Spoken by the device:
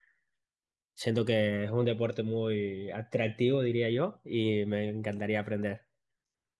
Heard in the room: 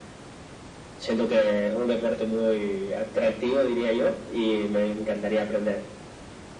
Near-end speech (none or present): none